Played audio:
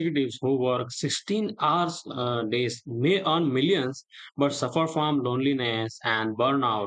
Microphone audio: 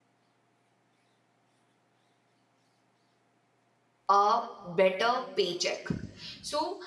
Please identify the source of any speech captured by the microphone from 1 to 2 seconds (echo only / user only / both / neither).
neither